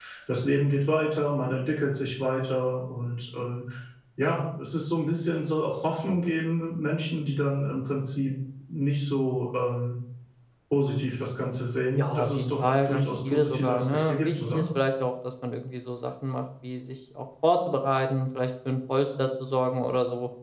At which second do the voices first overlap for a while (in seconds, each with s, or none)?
12.0 s